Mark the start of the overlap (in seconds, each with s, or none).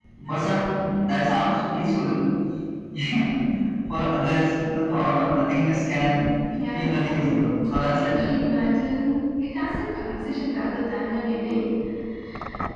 6.5 s